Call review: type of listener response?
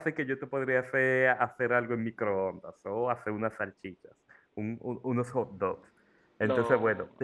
listening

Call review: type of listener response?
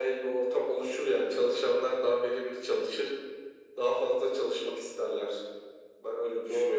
taking over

